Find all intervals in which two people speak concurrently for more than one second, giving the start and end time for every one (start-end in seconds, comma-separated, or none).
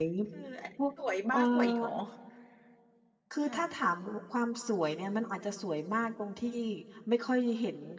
none